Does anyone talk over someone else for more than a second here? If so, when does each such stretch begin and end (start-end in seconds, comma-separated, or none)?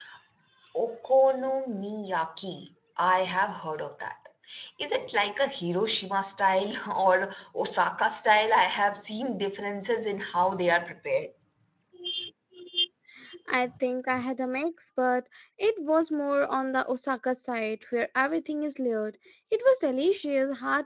none